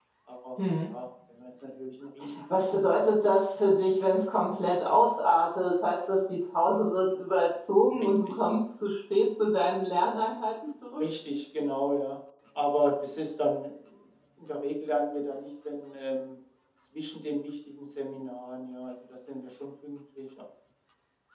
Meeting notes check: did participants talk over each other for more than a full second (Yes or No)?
No